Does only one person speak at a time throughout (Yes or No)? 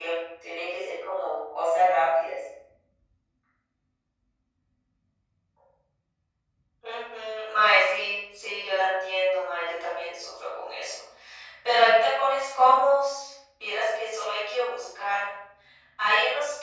Yes